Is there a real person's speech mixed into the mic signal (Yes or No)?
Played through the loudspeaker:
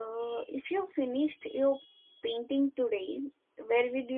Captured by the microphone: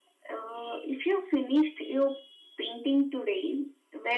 No